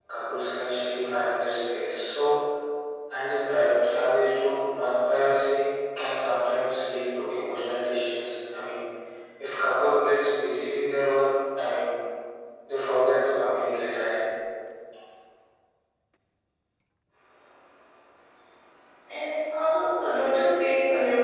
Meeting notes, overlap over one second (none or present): none